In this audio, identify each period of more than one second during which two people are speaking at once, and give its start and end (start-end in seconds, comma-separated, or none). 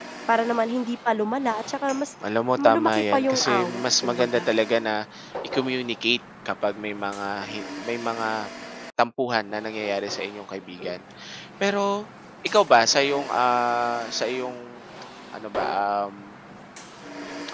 2.6-4.5